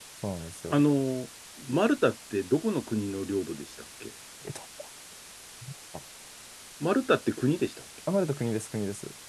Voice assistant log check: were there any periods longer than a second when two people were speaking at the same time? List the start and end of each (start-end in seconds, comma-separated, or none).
none